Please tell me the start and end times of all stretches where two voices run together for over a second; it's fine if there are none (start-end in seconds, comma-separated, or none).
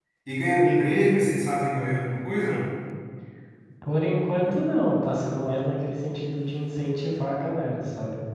none